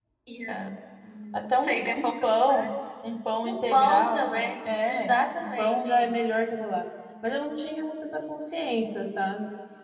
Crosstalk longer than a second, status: present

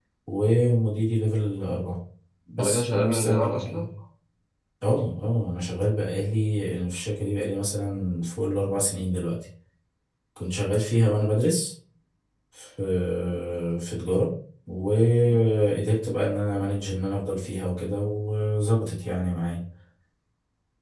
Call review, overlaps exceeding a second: present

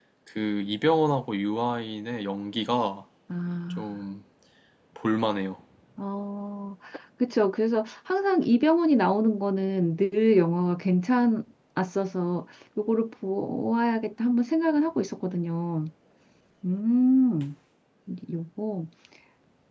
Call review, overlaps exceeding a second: none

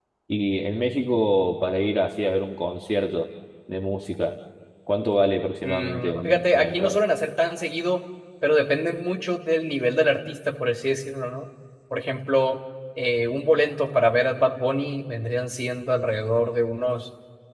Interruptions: present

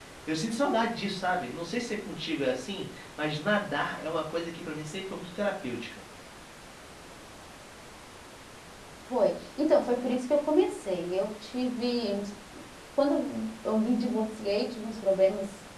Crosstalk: none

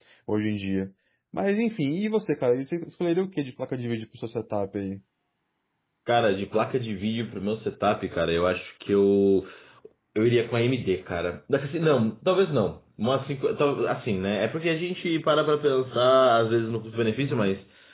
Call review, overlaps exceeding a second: none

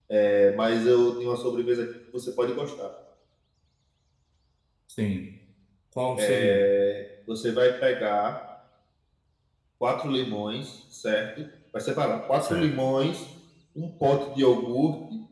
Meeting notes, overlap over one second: none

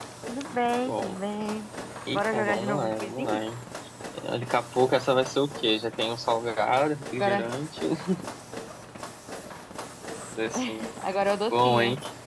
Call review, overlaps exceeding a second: present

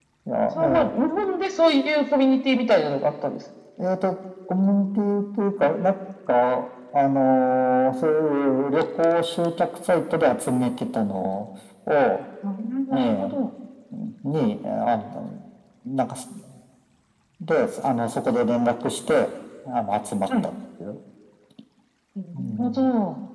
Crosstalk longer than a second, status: none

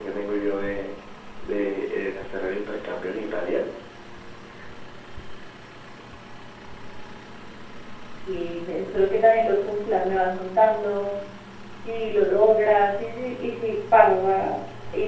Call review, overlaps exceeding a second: none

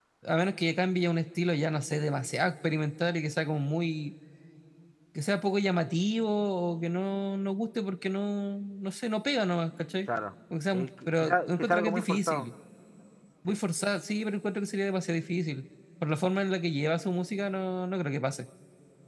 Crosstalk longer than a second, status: present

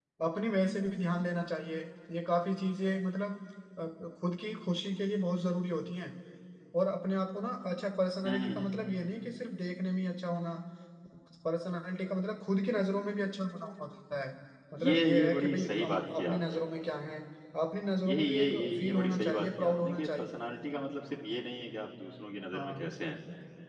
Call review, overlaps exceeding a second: present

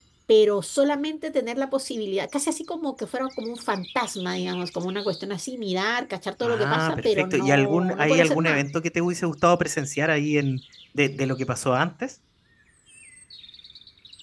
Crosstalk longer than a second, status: present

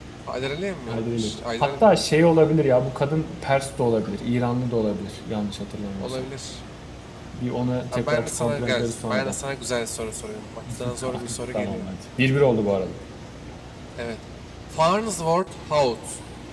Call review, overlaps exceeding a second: present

